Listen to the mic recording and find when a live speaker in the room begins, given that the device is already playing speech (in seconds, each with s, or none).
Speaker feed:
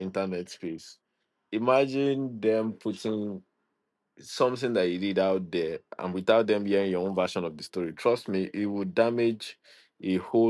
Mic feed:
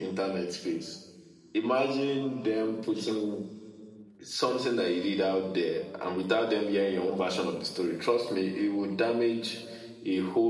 none